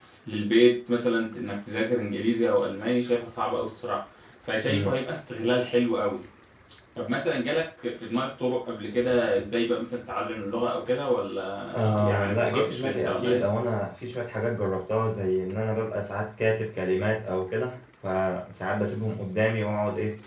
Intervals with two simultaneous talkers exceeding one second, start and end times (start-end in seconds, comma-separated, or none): 11.8-13.5